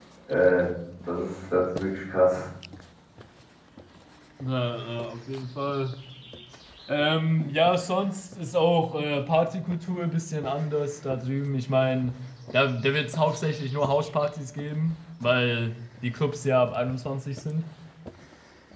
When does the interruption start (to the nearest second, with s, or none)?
none